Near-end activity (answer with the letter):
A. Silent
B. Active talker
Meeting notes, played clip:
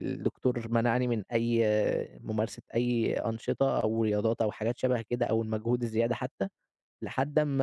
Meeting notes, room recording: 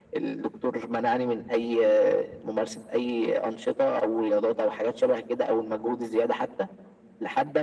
A